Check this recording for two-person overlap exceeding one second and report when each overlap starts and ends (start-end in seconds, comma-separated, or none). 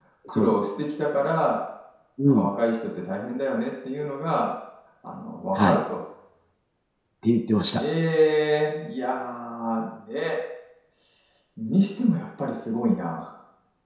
none